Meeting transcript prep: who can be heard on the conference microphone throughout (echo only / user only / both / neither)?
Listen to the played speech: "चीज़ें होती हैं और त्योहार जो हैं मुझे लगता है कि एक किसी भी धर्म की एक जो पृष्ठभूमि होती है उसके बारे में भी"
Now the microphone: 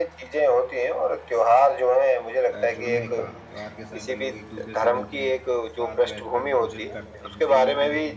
both